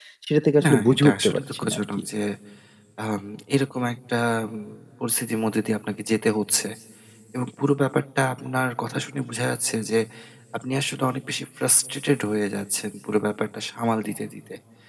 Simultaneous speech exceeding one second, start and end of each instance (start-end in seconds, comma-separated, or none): 0.6-1.8